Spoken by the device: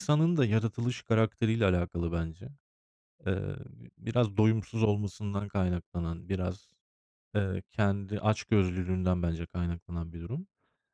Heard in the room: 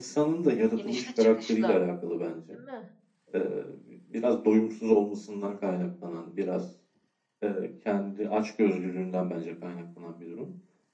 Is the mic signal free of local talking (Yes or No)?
No